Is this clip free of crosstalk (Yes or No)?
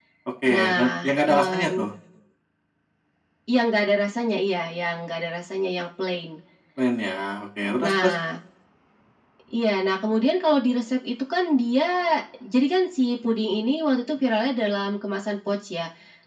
No